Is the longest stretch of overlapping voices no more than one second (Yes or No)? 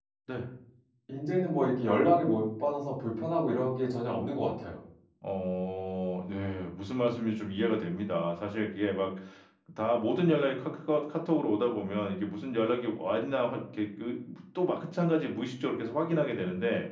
Yes